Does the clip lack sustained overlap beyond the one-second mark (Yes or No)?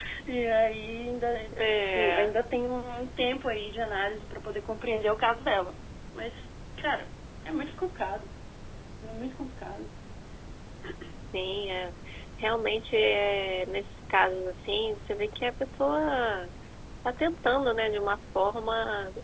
Yes